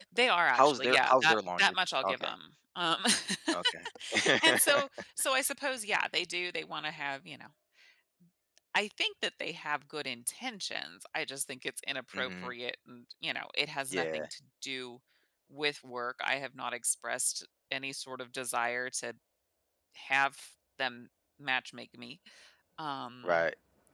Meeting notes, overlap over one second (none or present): present